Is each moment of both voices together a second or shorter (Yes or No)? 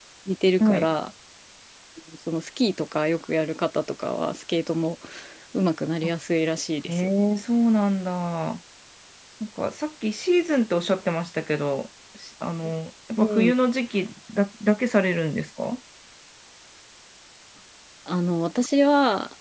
Yes